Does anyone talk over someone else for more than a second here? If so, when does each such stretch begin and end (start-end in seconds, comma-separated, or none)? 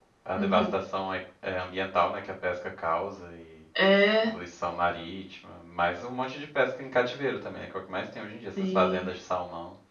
none